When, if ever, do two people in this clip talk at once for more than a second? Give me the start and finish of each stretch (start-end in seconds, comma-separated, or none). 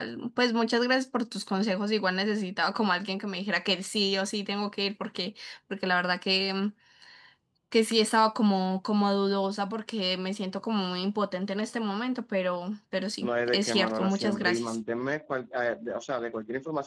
13.2-14.8